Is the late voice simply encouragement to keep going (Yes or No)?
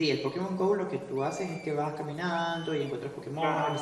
Yes